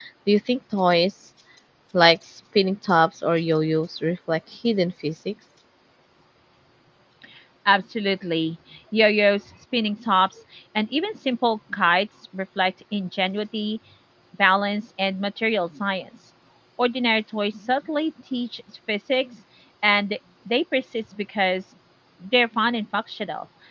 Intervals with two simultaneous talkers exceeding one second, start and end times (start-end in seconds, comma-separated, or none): none